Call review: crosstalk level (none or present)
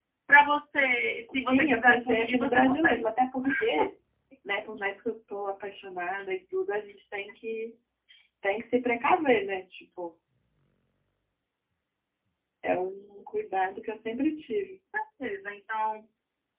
present